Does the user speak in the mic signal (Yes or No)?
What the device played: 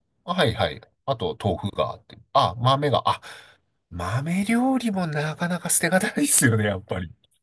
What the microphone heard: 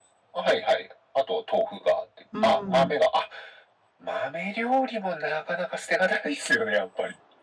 Yes